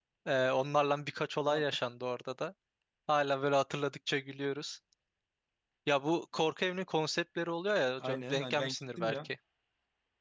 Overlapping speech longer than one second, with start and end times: 8.0-9.3

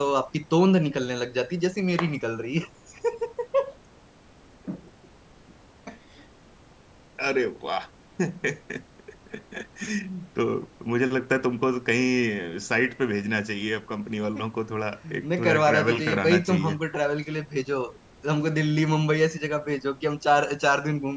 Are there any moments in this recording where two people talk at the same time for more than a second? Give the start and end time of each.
15.1-16.8

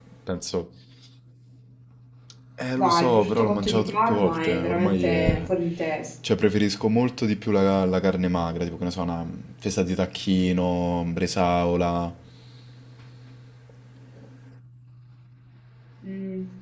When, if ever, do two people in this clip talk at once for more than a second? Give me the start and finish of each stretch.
2.8-5.4

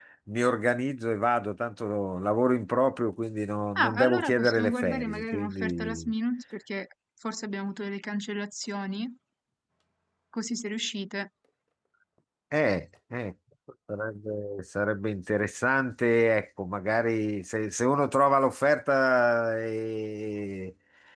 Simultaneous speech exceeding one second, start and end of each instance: 3.8-6.1

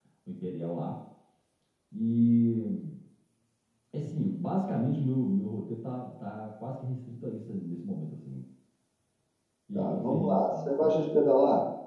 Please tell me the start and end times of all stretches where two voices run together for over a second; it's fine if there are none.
9.7-11.0

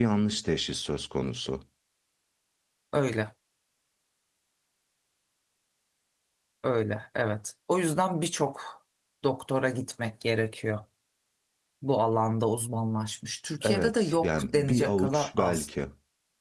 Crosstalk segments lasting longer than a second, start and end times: 13.6-15.7

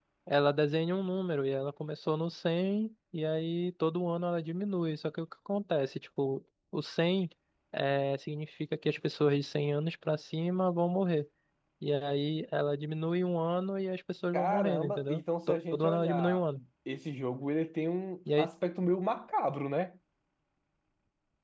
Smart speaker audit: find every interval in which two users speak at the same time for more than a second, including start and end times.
14.3-16.6

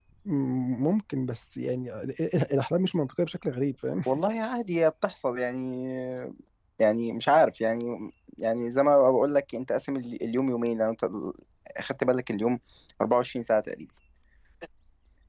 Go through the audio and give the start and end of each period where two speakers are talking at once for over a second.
none

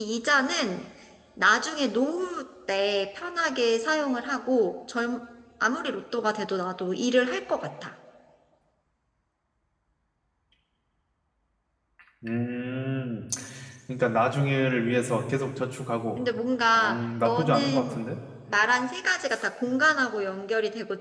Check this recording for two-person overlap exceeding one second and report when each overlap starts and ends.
16.8-18.0

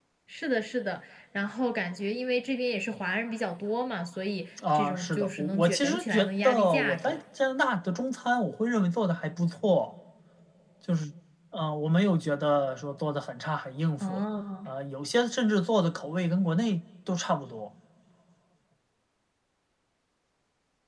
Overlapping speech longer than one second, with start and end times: 4.7-7.2

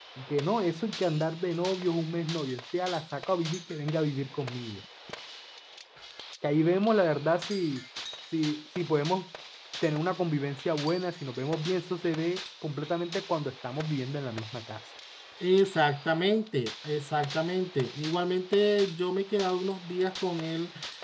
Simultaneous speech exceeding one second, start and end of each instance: none

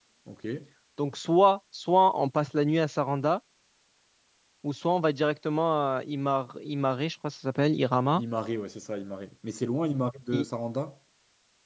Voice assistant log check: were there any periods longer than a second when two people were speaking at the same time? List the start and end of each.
none

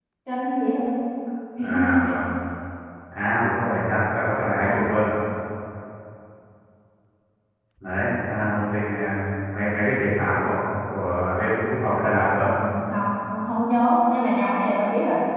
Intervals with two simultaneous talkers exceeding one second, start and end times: none

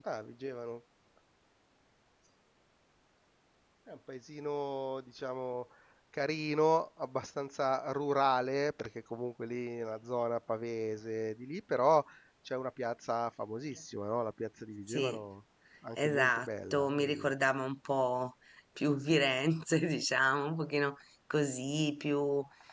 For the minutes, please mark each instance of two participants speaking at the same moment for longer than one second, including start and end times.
16.0-17.3

